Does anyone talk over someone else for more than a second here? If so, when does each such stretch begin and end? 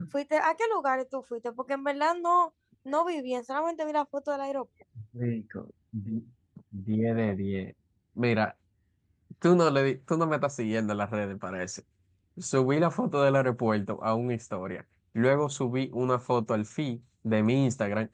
none

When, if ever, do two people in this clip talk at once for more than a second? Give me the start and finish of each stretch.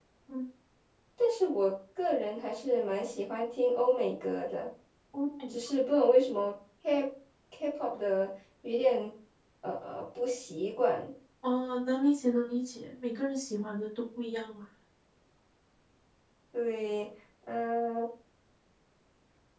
none

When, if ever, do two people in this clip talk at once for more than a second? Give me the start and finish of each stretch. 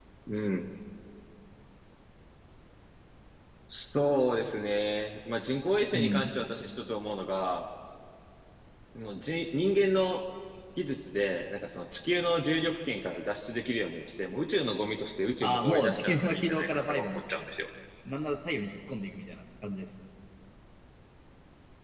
15.4-17.4

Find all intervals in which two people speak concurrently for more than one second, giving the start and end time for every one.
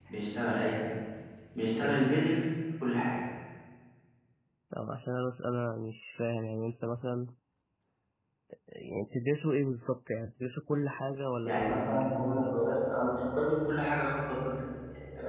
11.4-12.7

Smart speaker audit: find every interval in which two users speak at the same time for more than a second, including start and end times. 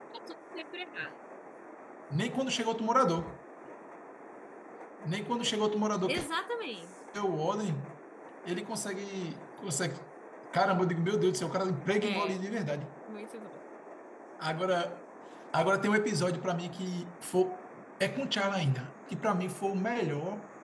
none

